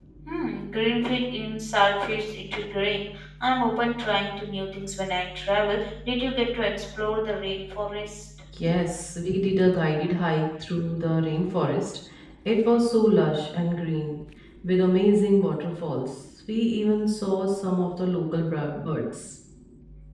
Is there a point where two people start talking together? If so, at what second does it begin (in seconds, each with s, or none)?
none